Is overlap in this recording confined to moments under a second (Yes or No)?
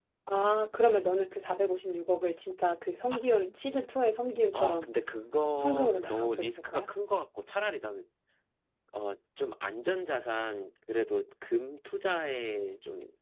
No